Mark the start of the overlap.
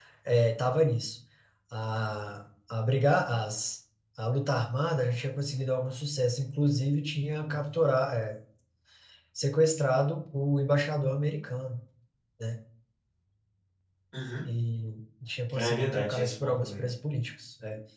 15.5 s

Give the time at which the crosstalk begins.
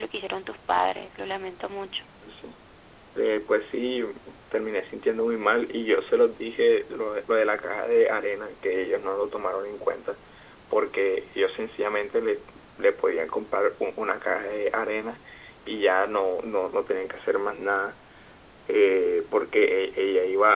none

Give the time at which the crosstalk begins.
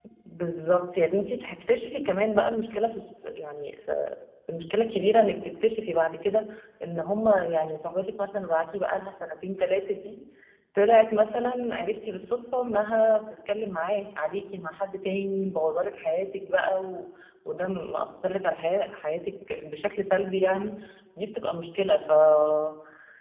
none

